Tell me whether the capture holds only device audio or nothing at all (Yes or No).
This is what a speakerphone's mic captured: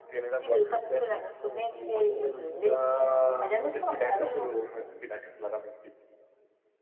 Yes